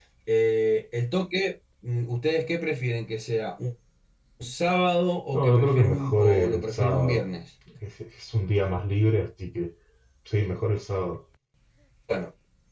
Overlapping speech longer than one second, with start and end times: 5.3-7.2

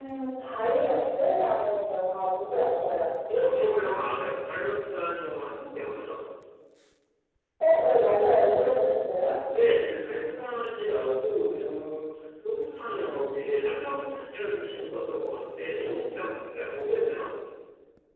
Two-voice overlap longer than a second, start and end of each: none

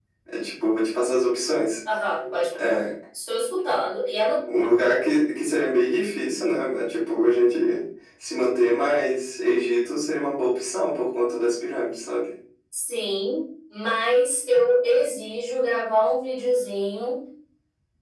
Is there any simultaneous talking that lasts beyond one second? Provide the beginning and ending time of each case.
none

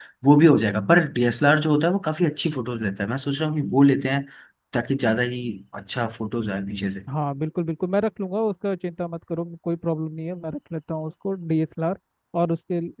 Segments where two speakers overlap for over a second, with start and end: none

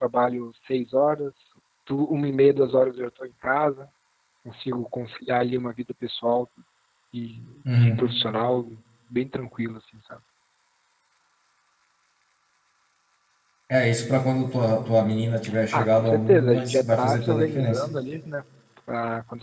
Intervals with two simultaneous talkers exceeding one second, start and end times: 15.7-17.8

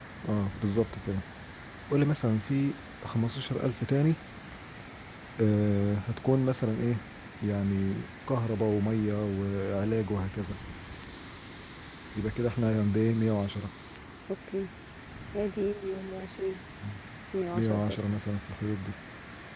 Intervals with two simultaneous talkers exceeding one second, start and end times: none

